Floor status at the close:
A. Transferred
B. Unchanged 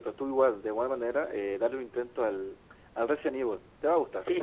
A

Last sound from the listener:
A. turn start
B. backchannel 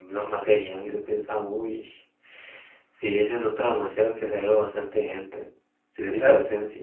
A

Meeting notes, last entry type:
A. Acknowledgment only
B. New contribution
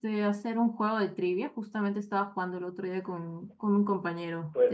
B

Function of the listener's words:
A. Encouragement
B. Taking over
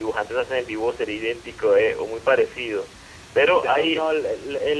B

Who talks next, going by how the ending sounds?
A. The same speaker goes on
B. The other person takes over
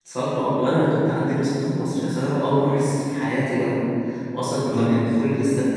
A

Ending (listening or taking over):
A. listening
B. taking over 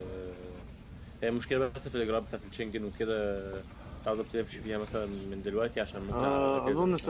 B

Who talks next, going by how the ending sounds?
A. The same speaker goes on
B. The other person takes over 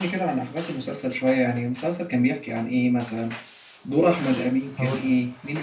A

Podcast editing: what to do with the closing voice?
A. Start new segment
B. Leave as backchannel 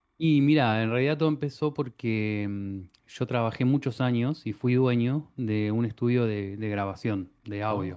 B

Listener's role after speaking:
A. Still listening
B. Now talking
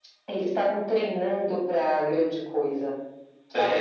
B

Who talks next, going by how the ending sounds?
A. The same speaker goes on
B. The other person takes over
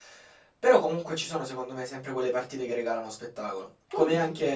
A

